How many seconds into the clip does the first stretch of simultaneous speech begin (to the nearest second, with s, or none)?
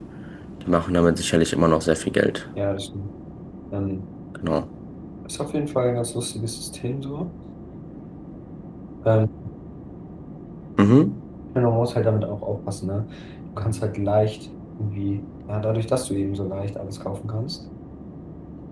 none